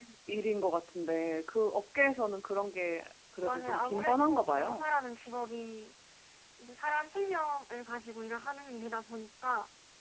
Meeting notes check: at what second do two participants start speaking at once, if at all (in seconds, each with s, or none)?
3.4 s